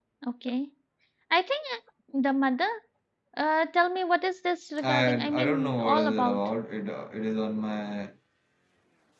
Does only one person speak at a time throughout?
No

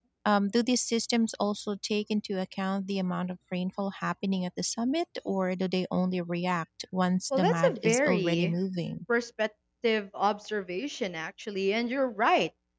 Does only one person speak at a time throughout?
No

